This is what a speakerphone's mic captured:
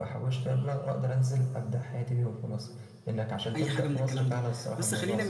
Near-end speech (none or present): present